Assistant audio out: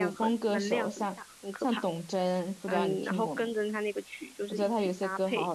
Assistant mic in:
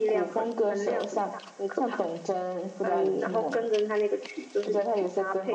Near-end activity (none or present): none